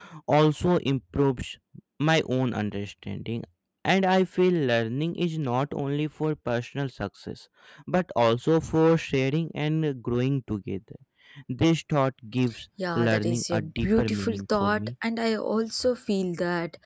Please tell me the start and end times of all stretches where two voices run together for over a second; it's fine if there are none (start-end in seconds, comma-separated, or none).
13.0-14.8